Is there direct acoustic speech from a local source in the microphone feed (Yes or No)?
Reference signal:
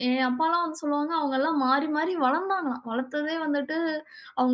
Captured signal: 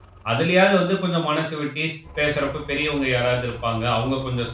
Yes